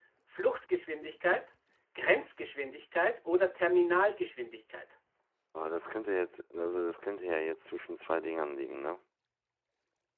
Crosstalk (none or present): none